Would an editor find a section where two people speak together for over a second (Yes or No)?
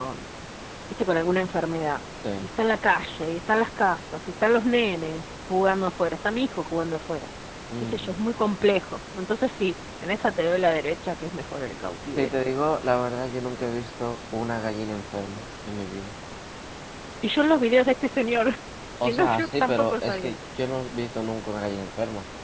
Yes